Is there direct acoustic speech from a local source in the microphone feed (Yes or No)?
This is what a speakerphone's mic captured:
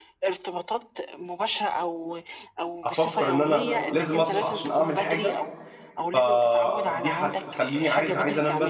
Yes